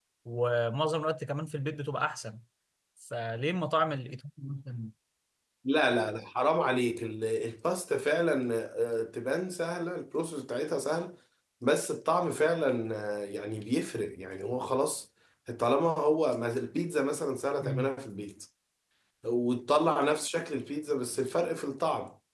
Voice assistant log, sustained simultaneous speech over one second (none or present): none